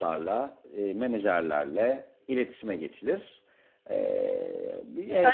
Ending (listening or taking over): taking over